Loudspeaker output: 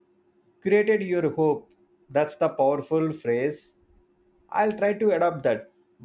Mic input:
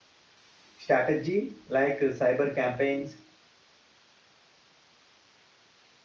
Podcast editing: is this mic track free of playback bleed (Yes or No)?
Yes